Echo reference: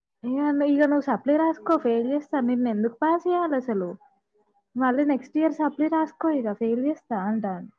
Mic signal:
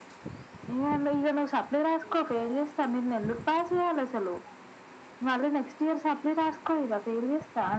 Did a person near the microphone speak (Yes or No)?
No